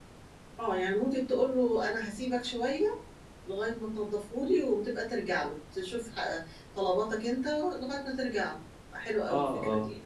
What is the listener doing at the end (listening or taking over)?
taking over